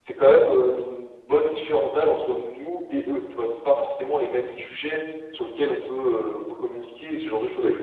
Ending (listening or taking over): taking over